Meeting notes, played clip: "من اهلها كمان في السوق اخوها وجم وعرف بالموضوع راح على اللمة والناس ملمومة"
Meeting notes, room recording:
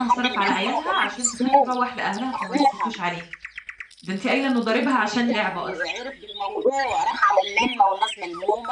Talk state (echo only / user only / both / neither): both